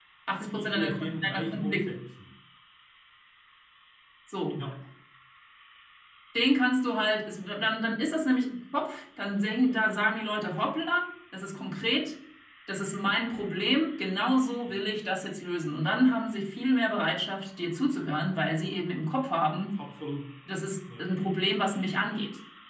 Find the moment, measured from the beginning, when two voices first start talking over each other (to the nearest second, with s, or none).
1 s